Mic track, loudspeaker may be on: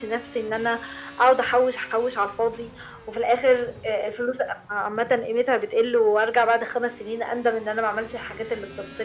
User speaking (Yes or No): No